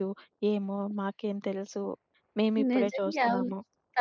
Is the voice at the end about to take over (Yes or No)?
Yes